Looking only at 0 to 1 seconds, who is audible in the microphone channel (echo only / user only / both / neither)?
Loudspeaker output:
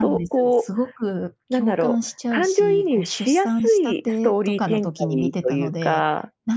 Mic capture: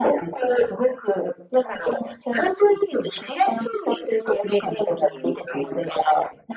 echo only